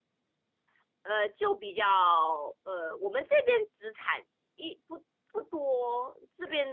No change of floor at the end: Yes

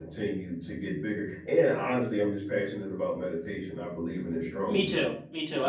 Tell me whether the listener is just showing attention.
No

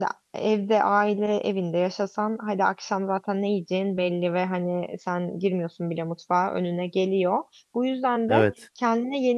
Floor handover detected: No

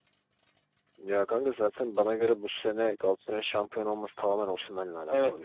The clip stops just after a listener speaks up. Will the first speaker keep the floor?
No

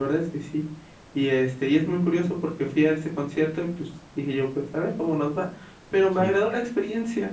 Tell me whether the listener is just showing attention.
Yes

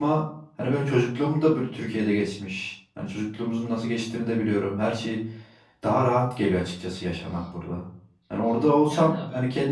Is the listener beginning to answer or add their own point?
No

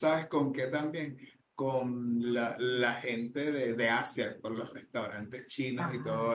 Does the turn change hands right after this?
No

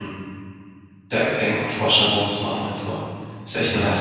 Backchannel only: No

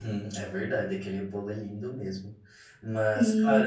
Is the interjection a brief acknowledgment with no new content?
Yes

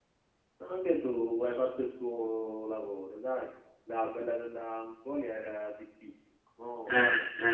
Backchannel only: No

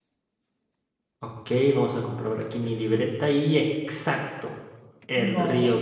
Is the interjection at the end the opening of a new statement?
No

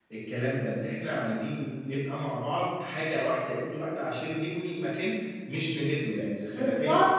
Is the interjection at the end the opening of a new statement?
Yes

